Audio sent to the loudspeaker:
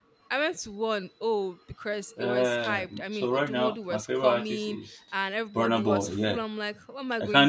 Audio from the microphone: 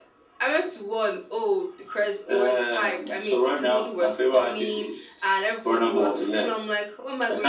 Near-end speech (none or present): none